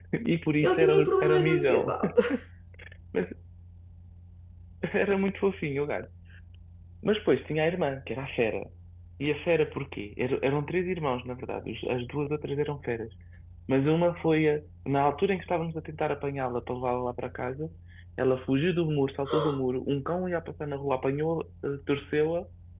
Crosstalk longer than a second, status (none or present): present